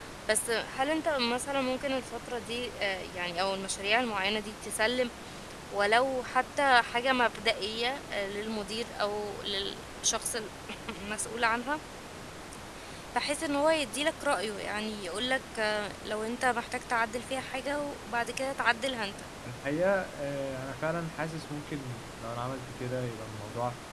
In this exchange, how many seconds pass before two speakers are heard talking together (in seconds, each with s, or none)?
none